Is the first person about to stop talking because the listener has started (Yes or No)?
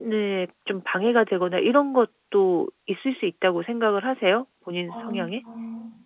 Yes